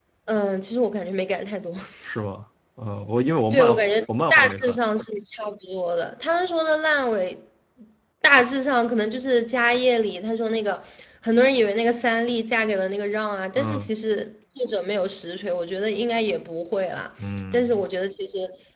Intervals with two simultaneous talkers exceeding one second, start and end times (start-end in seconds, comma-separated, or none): 3.5-4.8